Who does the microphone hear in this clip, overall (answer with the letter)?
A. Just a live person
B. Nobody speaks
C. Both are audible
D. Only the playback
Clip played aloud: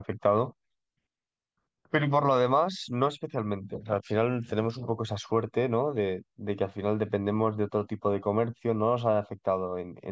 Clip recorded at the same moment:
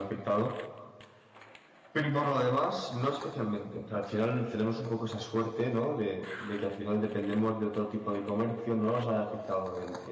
D